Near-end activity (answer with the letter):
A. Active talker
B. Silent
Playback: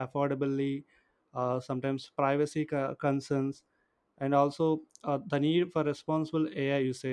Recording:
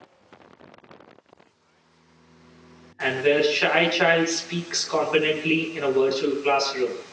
A